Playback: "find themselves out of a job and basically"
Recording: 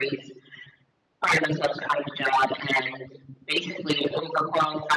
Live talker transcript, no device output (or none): none